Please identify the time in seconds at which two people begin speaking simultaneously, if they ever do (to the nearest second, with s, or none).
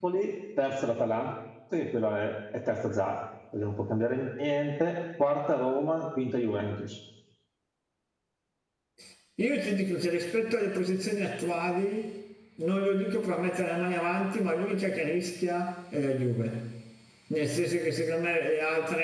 none